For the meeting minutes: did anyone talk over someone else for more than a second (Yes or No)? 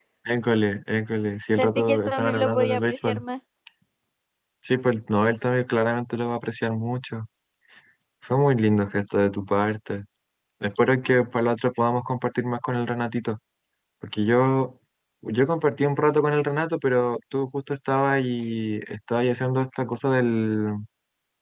Yes